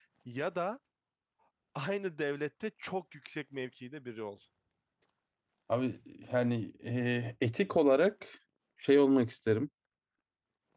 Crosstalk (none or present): none